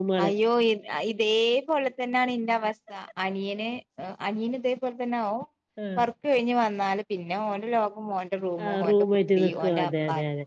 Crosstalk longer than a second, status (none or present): none